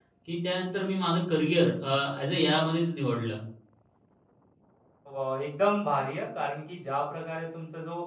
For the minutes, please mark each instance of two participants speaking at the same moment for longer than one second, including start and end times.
none

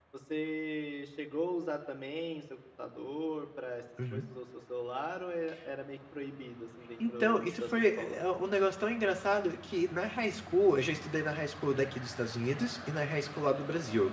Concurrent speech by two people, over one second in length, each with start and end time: 7.0-8.2

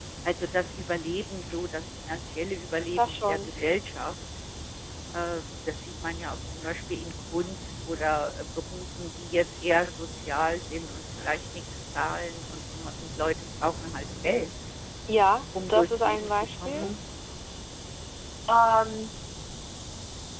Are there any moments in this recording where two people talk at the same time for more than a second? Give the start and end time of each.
15.7-16.9

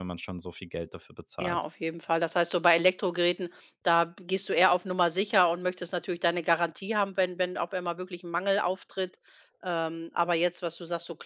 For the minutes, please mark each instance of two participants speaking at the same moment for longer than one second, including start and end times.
none

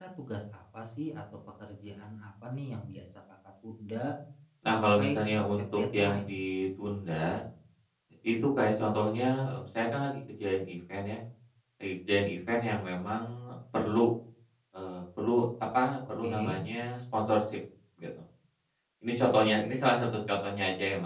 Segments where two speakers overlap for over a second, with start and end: 4.7-6.3

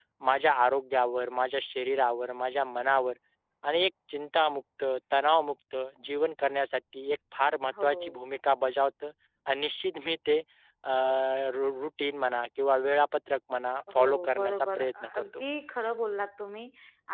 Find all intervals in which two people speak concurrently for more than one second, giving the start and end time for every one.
14.0-15.4

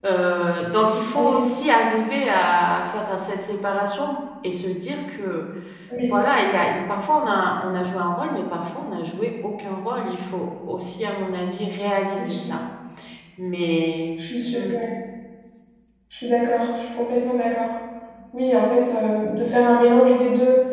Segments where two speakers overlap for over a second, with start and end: none

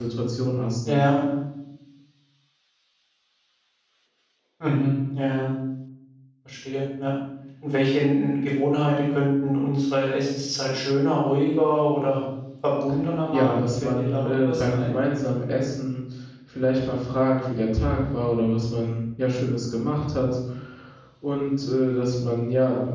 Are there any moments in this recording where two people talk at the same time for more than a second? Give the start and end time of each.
13.3-15.0

